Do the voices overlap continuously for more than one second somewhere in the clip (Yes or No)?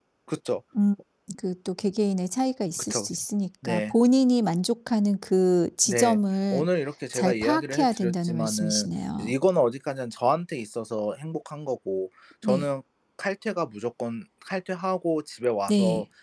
Yes